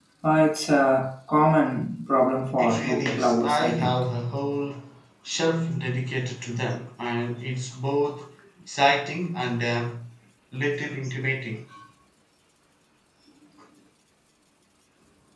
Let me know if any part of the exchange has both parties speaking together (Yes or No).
Yes